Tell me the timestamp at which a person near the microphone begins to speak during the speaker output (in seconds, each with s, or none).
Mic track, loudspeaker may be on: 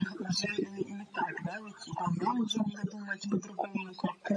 none